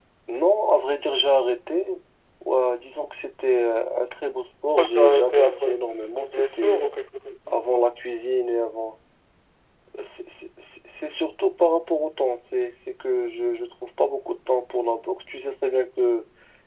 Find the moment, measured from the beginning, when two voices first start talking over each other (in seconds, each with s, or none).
4.8 s